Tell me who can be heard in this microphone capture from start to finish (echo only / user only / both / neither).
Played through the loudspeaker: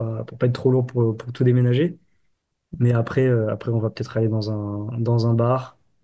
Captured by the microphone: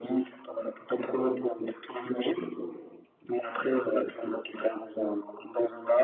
echo only